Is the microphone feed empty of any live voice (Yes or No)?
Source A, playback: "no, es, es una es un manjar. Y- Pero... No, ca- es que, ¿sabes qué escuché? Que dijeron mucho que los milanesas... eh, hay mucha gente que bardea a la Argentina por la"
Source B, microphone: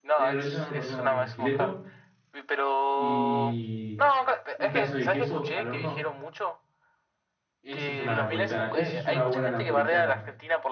No